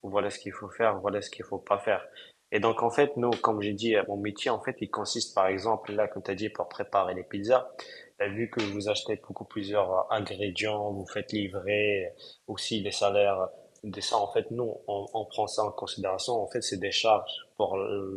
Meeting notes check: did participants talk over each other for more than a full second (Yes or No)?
No